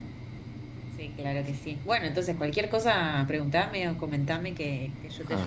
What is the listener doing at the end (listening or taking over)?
taking over